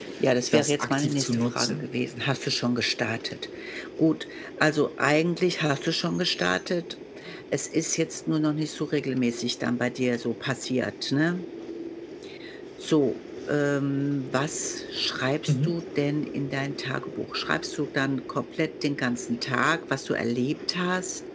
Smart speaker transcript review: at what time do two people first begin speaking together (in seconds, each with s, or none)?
0.5 s